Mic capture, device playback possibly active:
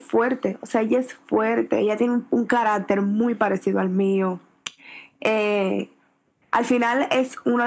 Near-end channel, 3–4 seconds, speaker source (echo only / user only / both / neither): echo only